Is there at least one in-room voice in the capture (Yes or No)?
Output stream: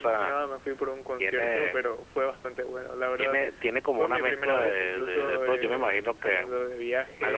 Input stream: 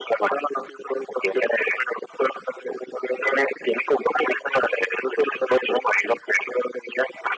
No